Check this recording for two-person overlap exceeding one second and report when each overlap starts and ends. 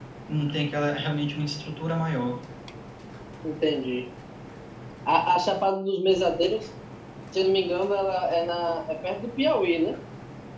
none

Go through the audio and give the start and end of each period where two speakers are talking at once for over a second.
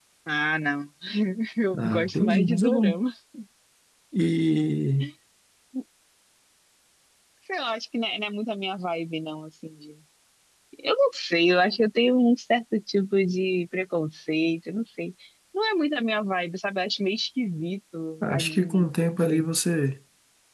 1.8-3.0, 18.2-19.5

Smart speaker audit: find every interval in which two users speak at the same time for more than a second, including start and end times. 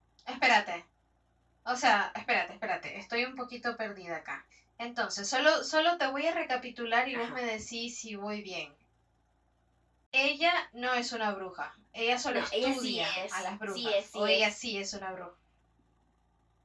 12.3-14.5

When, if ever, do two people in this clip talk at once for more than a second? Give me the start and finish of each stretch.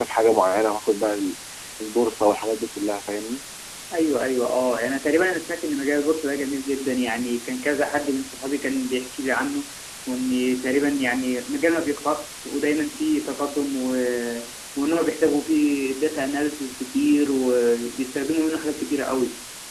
none

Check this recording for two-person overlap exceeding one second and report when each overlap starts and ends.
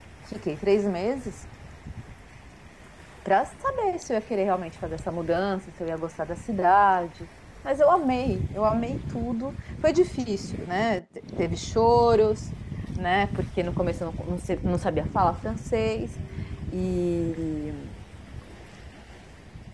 none

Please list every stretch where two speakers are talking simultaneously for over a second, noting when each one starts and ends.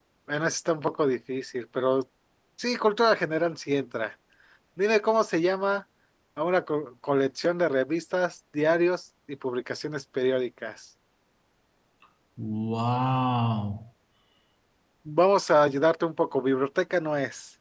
none

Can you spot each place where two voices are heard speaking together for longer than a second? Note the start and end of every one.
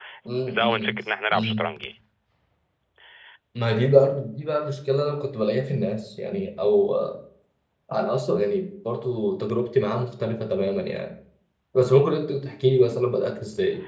none

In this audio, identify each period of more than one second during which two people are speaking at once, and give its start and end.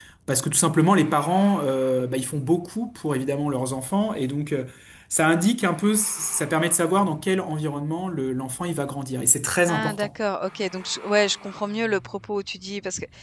none

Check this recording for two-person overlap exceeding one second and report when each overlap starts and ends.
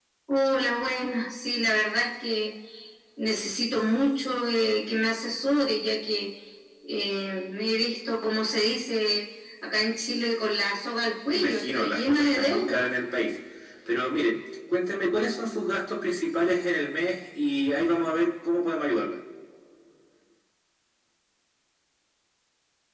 11.3-12.9

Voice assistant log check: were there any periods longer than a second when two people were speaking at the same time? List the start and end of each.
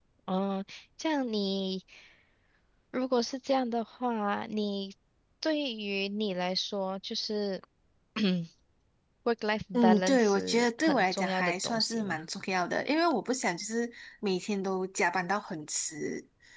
9.7-12.2

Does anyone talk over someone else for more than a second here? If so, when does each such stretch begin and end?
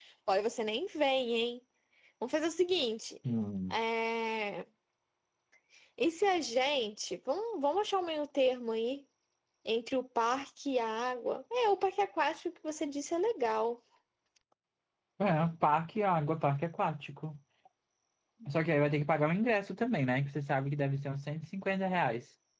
none

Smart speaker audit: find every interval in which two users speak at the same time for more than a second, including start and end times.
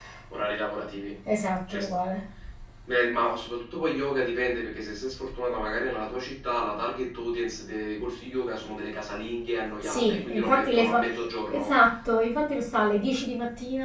9.8-11.1

